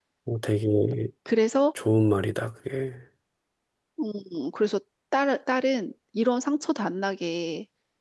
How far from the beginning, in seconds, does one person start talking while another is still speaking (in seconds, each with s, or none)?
none